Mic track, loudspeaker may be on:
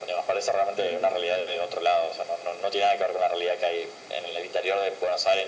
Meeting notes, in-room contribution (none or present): present